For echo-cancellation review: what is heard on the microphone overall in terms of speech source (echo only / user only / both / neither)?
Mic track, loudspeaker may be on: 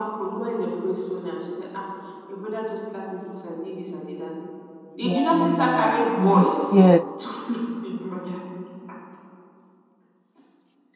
both